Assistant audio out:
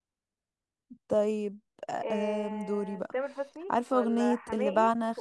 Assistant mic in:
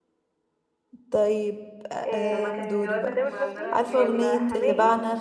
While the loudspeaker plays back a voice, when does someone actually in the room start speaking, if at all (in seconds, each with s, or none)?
2.3 s